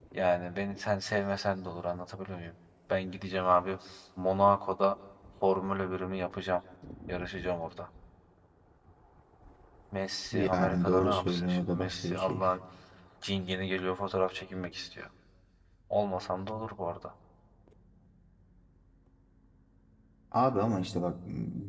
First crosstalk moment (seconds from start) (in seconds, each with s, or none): 10.5 s